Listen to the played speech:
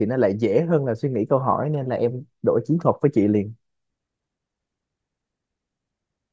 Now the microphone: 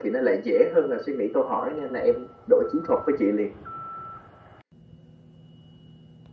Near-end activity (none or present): none